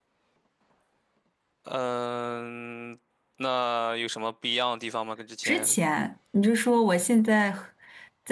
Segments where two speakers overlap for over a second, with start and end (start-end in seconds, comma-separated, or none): none